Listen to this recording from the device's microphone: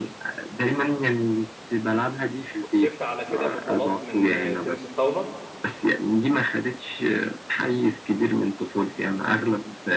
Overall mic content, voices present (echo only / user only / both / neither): both